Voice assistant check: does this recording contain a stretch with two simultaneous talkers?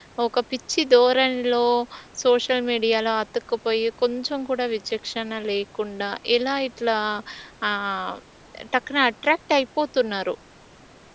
No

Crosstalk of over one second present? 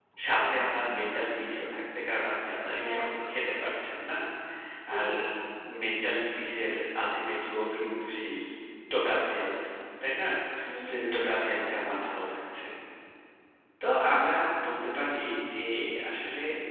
No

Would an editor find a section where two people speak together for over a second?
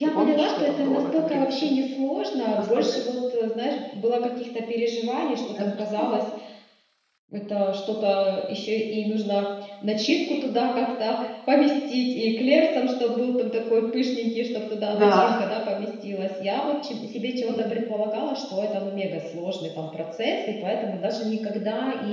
Yes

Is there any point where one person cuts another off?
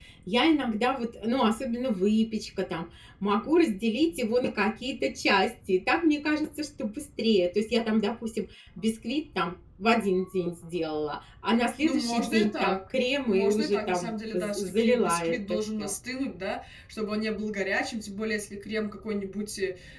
Yes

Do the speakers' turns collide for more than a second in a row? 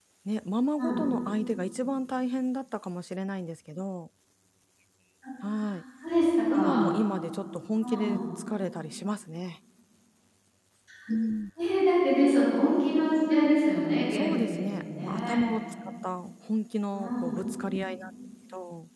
Yes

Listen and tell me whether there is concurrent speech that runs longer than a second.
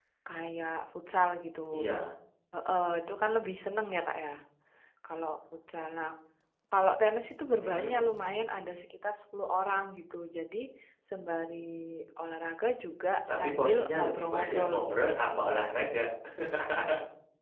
Yes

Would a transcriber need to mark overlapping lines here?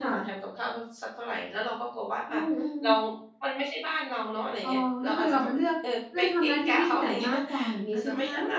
Yes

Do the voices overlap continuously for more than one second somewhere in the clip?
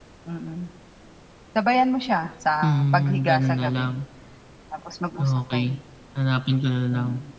Yes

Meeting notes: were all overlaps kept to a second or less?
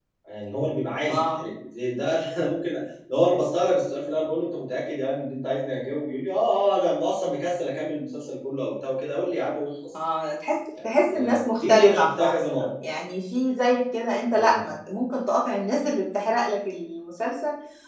No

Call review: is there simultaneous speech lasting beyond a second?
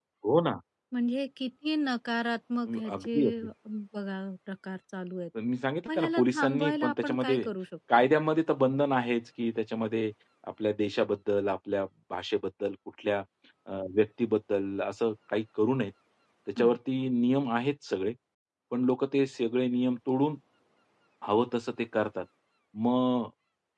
Yes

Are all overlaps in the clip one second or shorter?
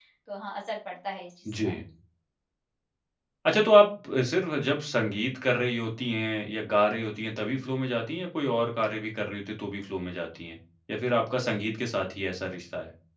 Yes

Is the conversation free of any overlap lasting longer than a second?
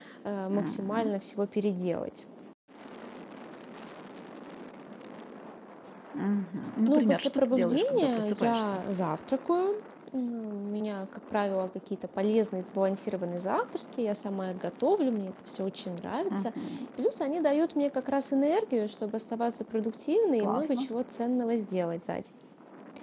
No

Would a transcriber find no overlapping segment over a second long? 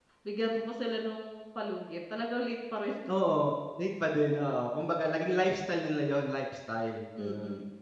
Yes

